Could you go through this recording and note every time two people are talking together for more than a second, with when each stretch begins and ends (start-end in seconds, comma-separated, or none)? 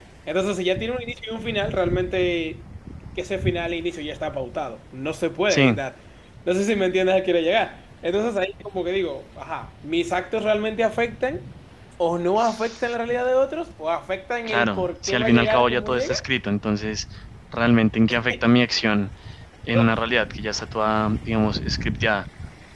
14.5-16.1